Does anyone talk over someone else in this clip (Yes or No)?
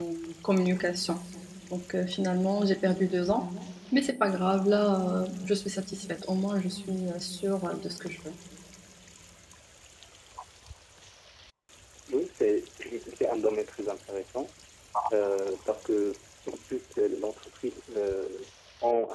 No